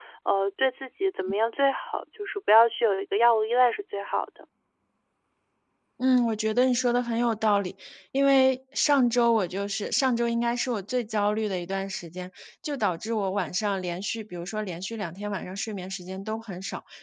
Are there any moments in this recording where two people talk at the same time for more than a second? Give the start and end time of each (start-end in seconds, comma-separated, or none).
none